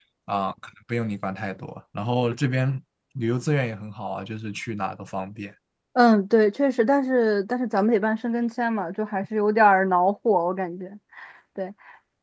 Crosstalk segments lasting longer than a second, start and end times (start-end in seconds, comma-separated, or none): none